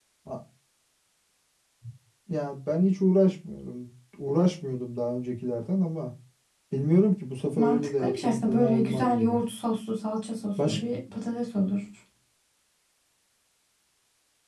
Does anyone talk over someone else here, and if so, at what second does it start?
8 s

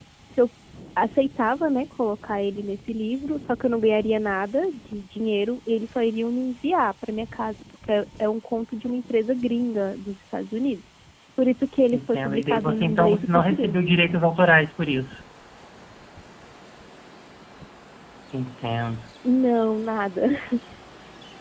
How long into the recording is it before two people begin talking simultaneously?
12 s

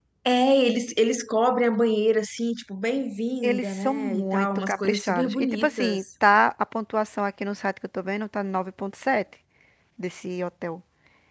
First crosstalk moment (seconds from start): 3 s

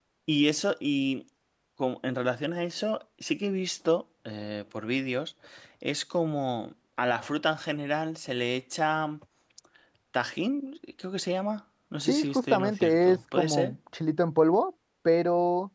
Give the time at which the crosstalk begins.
12 s

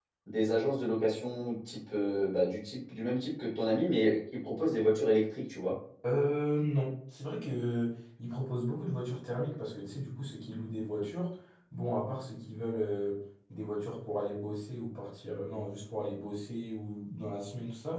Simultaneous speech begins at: none

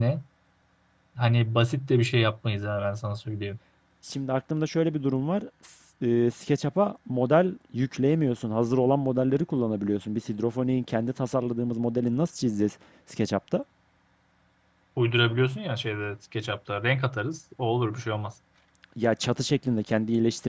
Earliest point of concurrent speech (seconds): none

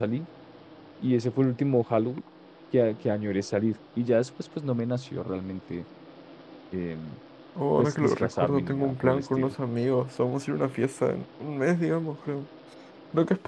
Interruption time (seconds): 8 s

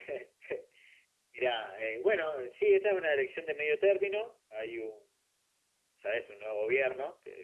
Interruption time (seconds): none

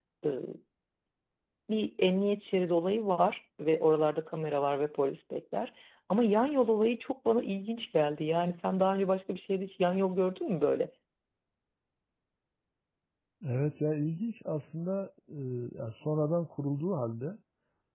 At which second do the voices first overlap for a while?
none

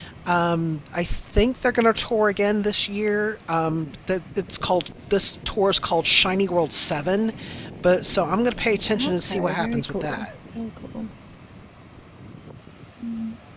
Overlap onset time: 9 s

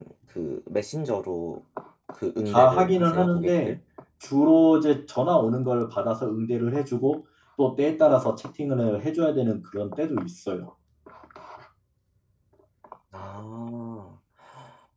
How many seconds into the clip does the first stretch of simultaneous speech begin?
3 s

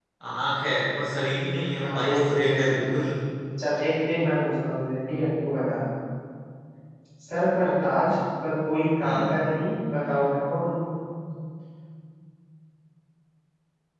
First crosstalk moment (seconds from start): 2 s

